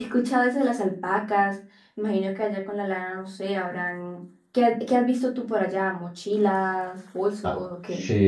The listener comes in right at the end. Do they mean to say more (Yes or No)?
Yes